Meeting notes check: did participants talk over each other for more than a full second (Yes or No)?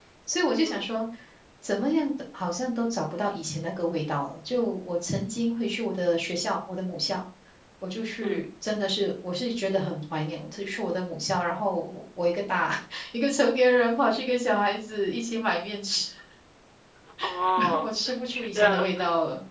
Yes